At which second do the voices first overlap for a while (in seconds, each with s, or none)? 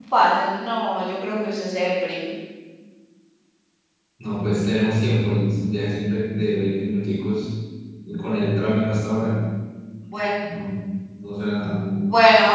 none